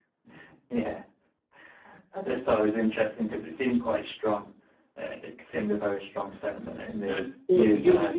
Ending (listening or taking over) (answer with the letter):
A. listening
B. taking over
B